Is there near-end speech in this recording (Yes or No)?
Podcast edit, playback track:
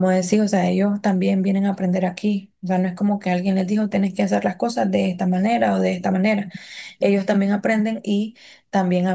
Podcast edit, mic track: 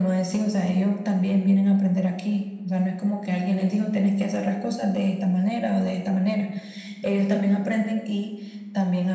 No